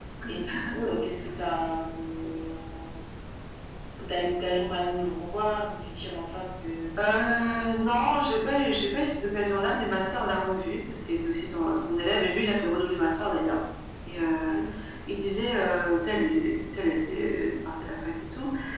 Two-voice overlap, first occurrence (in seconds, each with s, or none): none